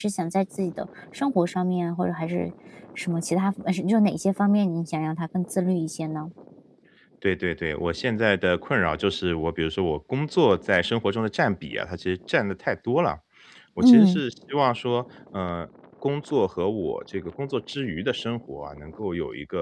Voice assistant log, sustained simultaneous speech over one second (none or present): none